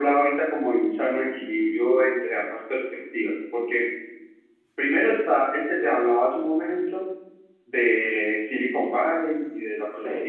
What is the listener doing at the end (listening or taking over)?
listening